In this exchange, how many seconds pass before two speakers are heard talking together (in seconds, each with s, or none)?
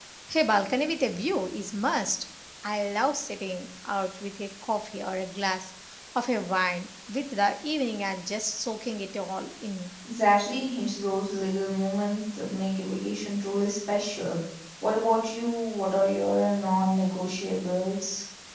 none